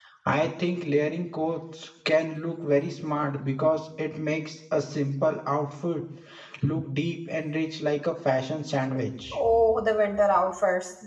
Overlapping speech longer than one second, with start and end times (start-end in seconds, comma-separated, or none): none